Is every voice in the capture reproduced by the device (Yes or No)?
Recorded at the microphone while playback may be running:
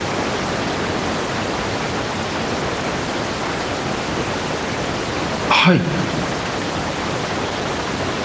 No